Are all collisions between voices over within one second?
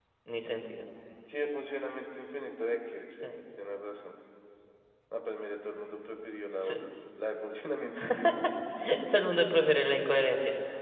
Yes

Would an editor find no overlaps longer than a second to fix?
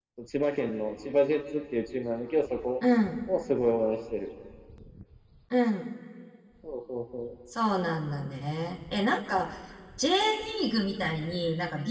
Yes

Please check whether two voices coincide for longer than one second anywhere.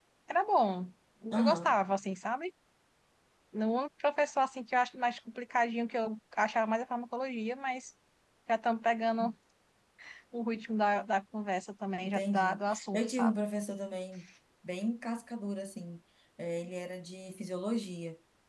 Yes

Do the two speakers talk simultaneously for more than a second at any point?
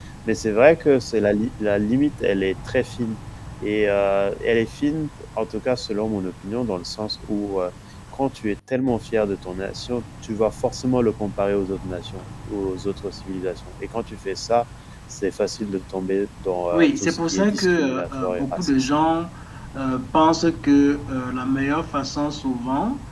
Yes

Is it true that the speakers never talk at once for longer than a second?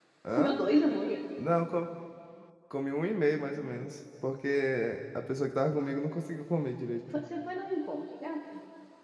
Yes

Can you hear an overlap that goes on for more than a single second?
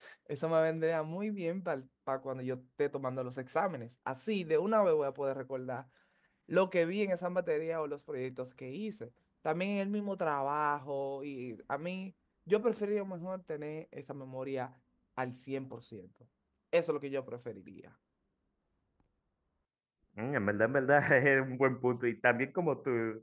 No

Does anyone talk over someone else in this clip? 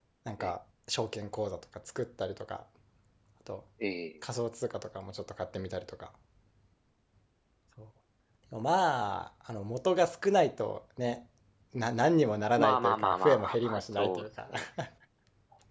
Yes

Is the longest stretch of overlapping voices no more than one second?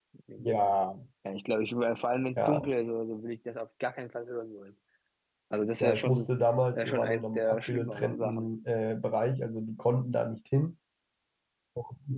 No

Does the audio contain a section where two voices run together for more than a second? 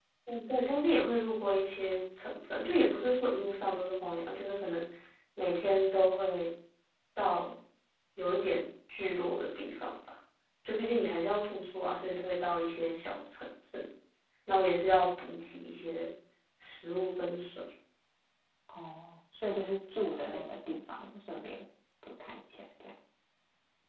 No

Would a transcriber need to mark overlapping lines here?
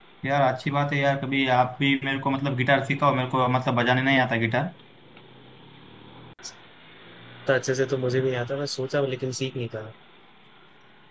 No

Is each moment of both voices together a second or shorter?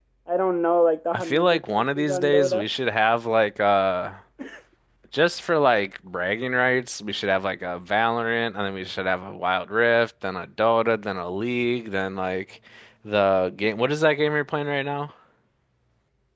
No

